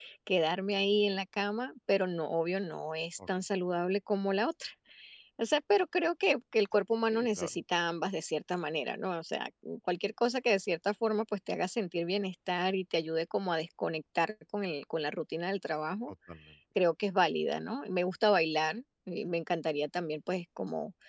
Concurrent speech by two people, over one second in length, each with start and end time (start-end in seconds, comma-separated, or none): none